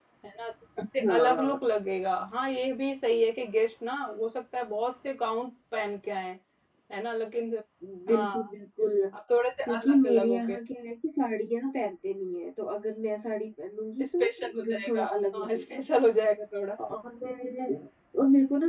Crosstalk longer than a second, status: present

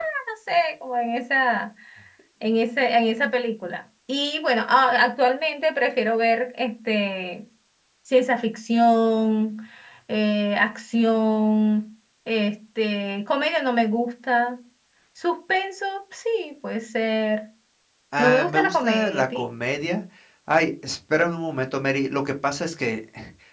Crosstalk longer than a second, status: present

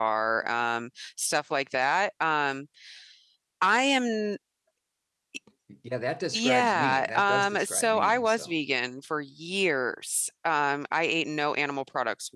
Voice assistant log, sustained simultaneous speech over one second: present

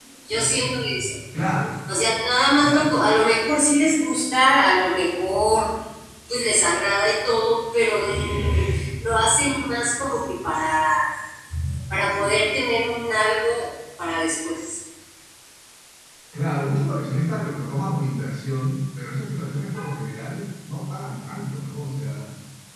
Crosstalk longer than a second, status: none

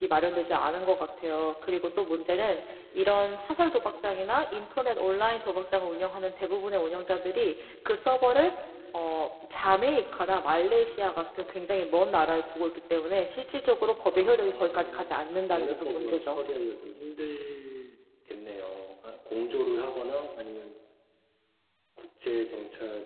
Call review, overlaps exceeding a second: present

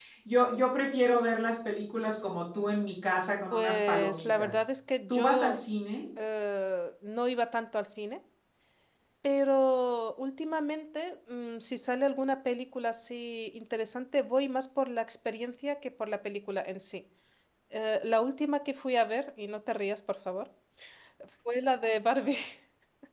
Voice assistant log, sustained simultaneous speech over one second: present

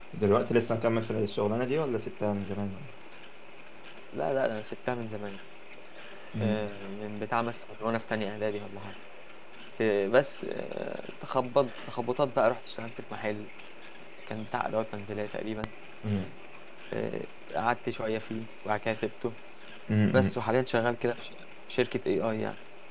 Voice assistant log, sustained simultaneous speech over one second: none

